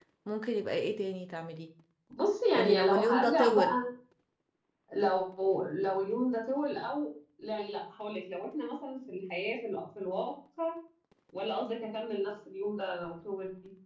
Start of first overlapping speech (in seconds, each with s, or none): 2.6 s